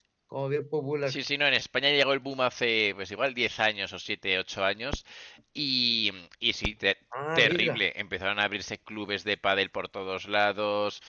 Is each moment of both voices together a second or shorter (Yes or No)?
Yes